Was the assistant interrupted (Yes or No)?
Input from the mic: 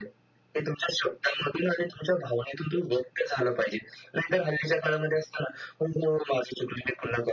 No